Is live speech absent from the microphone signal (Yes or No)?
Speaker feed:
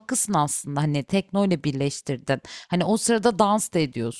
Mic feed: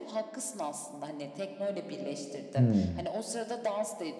No